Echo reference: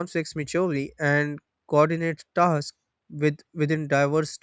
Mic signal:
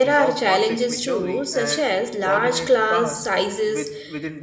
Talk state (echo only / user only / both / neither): both